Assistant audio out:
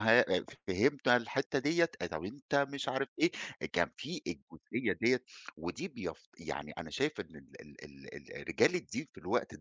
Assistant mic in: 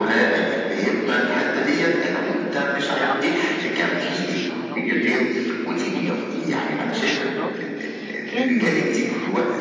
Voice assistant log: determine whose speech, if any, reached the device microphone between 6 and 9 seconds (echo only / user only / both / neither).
both